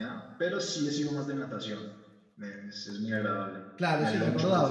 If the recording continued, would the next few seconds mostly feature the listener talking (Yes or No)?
Yes